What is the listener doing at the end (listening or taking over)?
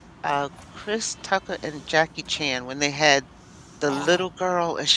listening